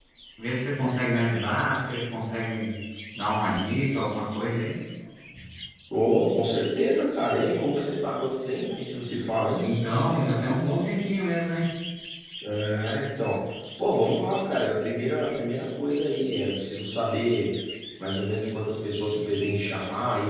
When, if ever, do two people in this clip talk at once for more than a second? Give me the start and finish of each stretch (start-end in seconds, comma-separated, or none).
none